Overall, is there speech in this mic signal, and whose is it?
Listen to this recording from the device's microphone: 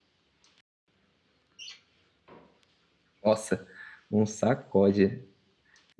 user only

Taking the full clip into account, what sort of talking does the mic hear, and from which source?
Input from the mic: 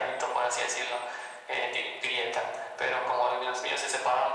echo only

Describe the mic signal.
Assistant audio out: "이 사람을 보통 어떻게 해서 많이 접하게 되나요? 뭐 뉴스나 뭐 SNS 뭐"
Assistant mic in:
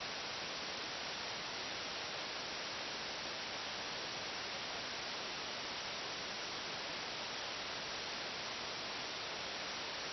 neither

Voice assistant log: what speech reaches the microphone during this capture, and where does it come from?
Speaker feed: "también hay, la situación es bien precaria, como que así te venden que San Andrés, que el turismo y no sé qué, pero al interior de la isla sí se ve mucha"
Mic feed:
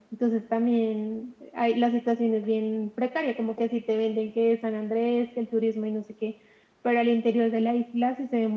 echo only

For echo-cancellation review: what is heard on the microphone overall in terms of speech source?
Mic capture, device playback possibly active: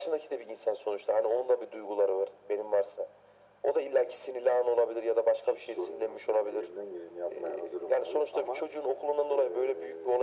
echo only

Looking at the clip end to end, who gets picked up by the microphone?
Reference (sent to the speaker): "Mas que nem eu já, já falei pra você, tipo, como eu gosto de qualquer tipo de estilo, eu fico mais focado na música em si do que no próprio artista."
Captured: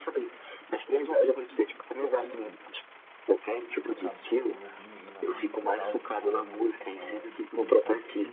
both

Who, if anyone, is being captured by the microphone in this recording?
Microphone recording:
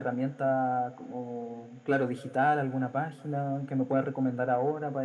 echo only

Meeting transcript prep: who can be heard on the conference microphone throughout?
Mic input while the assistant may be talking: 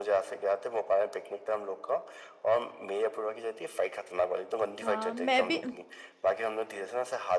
both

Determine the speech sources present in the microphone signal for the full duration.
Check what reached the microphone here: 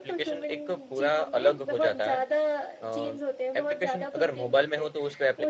both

